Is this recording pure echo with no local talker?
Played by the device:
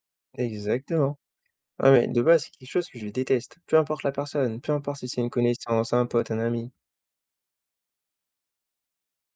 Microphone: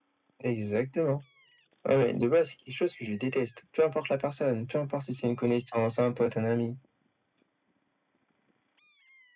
Yes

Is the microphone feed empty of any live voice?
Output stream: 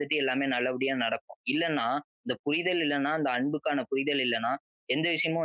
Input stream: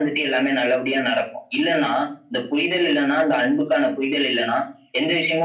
Yes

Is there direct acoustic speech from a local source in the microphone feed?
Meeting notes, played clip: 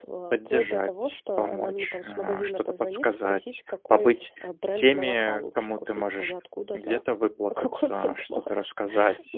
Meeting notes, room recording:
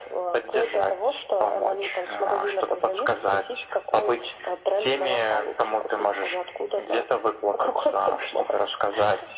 No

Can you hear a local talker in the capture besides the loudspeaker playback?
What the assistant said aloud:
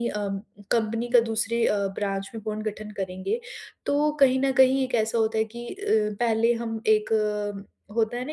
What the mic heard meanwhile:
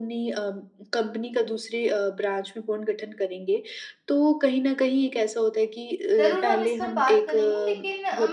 Yes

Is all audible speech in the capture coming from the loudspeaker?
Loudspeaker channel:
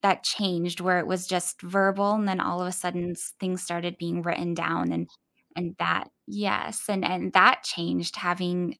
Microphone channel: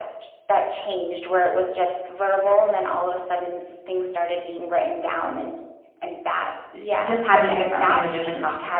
No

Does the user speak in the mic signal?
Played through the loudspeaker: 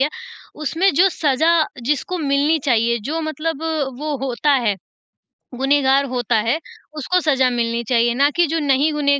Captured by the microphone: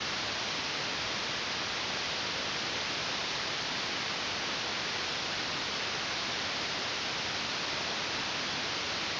No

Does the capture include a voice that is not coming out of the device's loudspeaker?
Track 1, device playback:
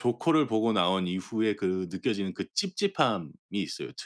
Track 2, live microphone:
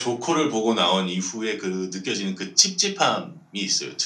No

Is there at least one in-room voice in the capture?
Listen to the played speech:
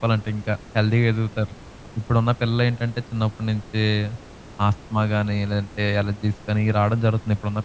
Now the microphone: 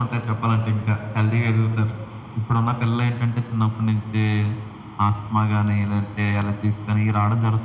No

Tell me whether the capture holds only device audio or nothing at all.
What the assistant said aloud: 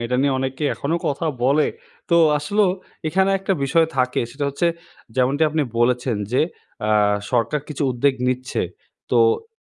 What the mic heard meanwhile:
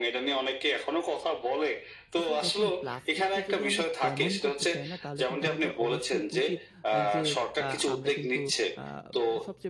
No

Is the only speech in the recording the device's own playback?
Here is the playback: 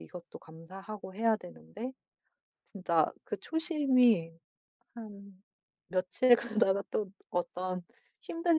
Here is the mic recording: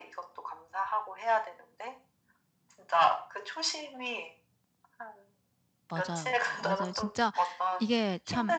No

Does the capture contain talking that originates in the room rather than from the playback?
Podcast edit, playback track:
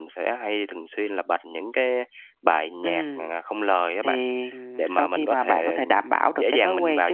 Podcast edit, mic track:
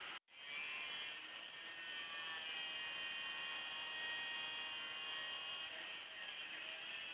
No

